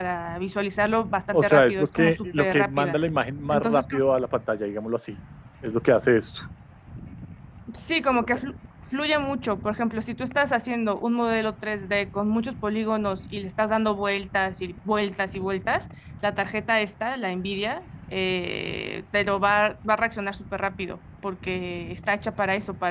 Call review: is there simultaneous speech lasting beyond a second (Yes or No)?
Yes